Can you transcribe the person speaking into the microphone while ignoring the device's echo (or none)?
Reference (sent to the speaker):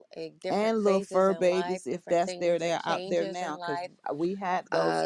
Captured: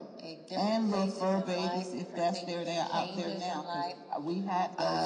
none